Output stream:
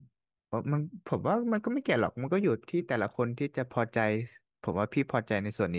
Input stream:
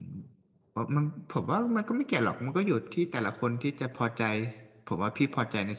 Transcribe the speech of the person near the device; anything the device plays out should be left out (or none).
none